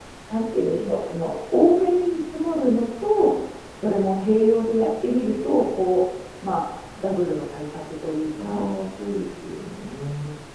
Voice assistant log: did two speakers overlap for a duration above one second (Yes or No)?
No